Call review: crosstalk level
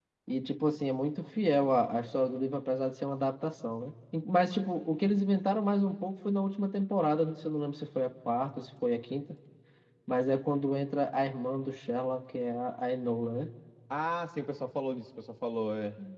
none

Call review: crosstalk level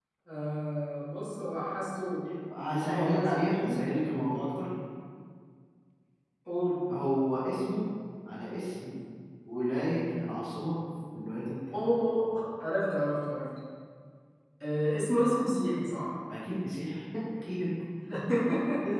present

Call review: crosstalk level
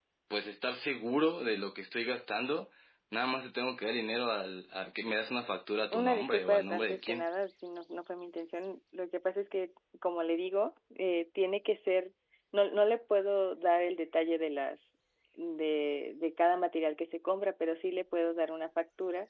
present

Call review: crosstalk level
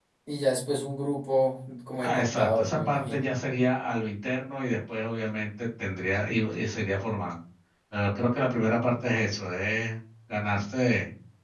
present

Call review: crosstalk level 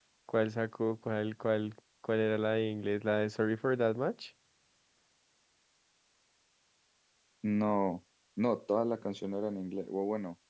none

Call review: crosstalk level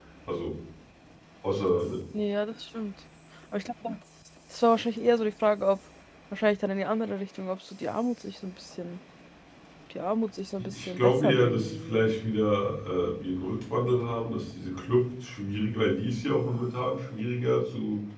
present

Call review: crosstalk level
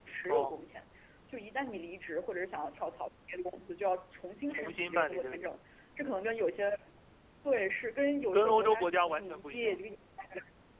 present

